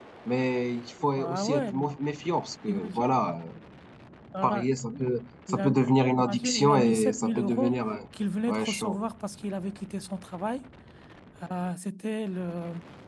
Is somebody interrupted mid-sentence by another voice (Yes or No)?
Yes